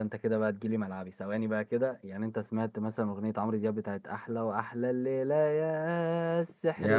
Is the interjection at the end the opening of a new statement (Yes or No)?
Yes